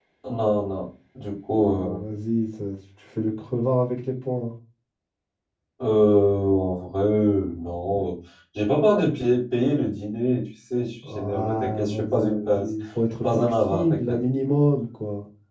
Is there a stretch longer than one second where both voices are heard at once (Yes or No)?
Yes